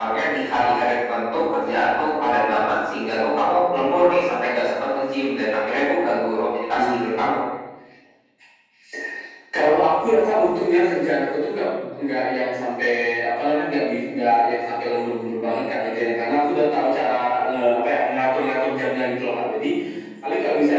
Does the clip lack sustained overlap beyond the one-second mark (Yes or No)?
Yes